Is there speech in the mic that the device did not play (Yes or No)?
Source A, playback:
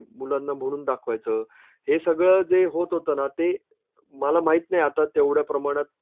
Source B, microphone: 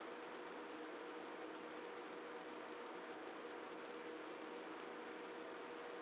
No